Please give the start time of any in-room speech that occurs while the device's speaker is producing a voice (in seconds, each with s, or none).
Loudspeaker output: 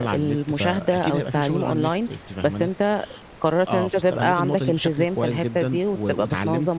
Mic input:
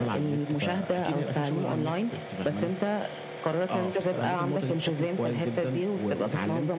none